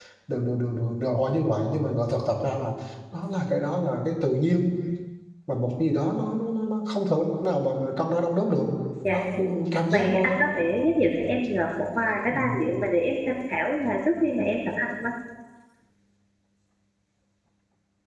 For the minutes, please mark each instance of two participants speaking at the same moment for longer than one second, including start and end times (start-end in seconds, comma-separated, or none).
none